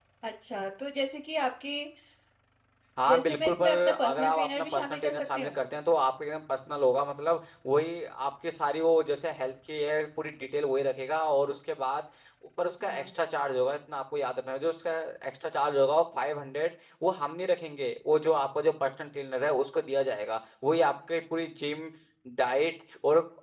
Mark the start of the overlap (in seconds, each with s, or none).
3.1 s